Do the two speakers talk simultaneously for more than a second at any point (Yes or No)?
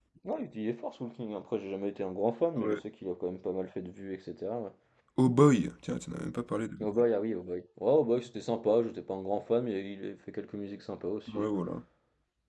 No